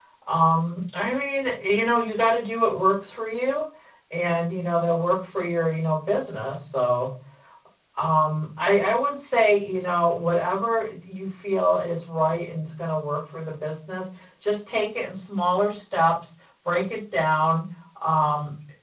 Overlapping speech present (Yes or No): No